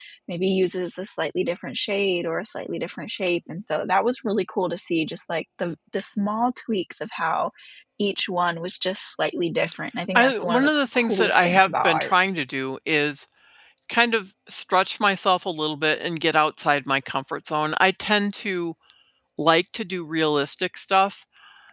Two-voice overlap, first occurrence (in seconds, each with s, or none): 10.2 s